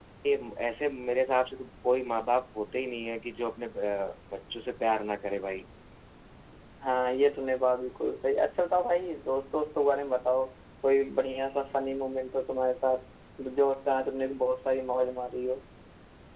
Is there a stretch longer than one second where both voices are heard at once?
No

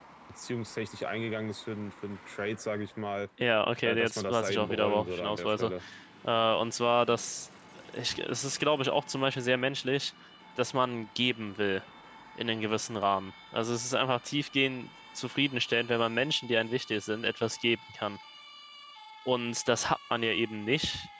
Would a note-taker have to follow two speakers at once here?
Yes, from 3.9 s

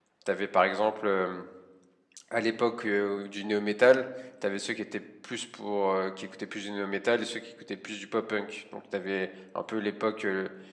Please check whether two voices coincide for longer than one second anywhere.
No

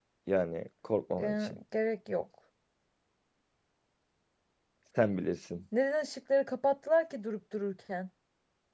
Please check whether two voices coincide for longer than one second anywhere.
No

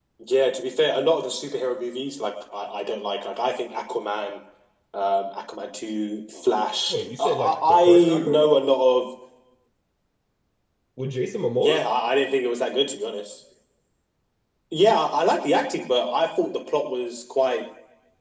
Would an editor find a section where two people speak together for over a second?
Yes, from 6.9 s

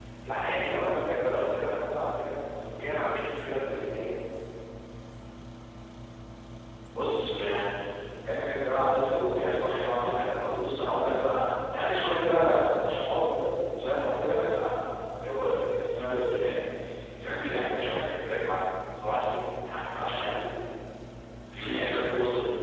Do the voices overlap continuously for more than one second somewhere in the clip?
No

